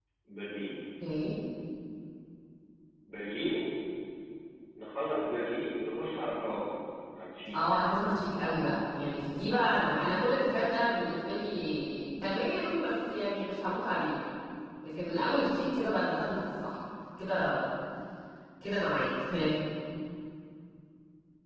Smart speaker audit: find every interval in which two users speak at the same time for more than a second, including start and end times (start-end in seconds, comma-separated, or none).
none